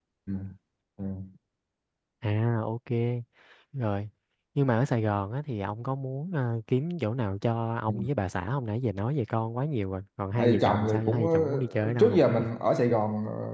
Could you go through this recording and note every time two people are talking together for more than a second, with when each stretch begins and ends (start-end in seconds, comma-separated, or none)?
10.3-12.2